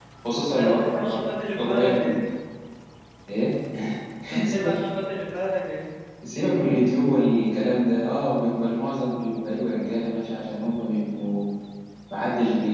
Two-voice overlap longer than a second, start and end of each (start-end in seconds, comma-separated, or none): 0.6-2.2